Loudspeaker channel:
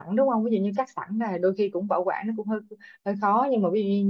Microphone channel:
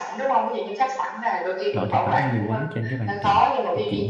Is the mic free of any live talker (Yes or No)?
No